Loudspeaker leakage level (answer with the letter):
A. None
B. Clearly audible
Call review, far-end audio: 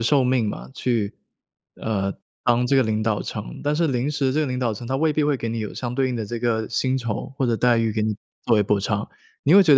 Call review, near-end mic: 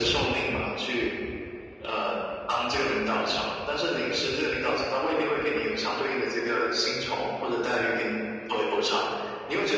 B